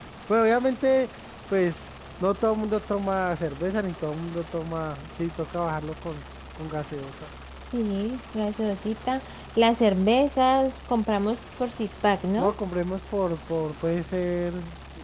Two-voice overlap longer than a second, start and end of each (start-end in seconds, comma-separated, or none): none